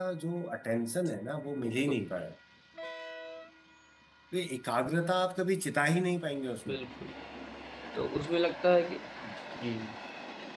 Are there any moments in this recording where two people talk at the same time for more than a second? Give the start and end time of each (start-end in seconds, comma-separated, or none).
none